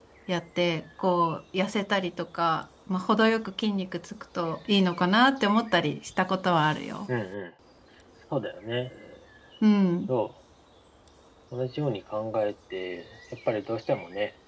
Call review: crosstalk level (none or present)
none